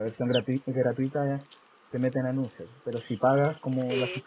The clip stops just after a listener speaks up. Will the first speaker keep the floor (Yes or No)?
Yes